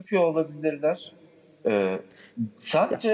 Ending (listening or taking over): listening